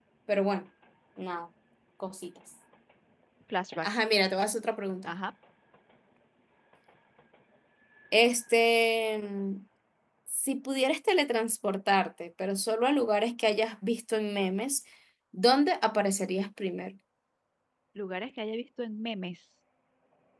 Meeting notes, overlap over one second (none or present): none